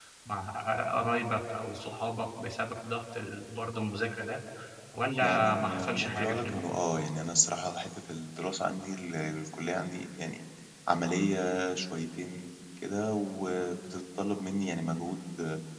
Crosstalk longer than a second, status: present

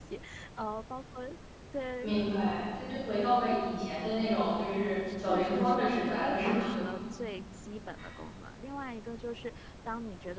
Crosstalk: present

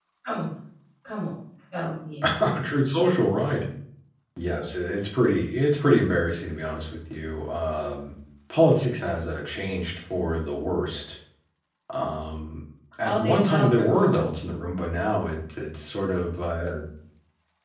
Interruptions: present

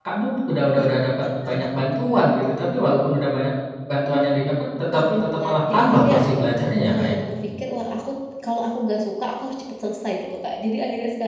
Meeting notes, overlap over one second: present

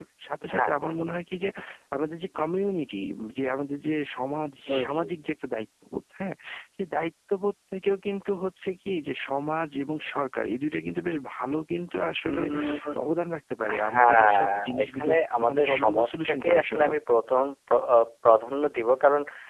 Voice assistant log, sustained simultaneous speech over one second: present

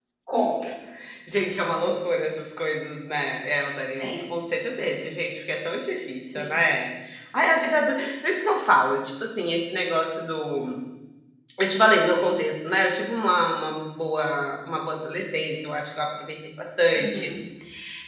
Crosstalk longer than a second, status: none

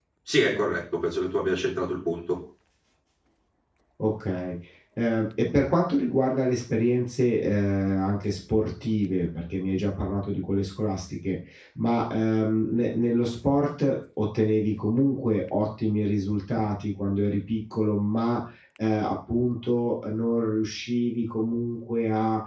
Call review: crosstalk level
none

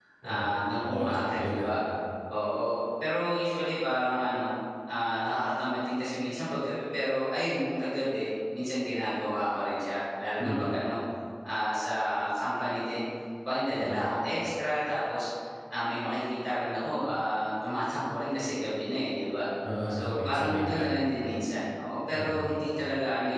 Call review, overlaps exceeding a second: present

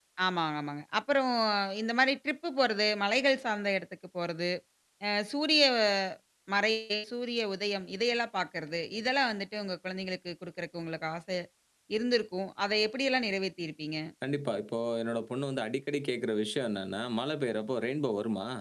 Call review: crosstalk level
none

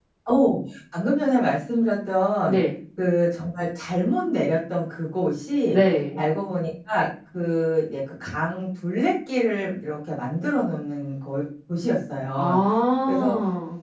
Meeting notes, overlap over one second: none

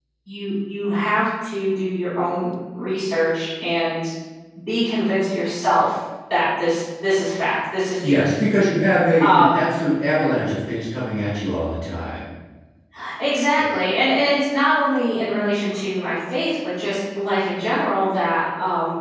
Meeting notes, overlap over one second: none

